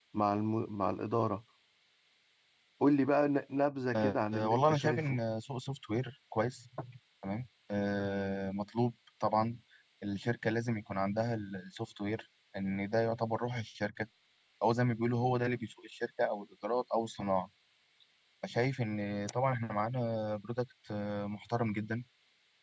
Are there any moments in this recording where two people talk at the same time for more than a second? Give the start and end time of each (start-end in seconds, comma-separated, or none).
4.0-5.2